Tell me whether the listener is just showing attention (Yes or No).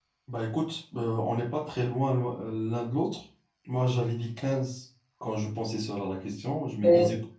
Yes